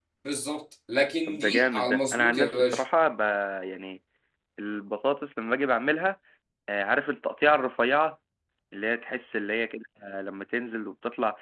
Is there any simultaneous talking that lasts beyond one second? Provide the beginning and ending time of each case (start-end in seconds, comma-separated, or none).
1.3-2.8